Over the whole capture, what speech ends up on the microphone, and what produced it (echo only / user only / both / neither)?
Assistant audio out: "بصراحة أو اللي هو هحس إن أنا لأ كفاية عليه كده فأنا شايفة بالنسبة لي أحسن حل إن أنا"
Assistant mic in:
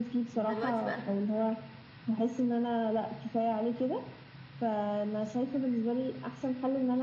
both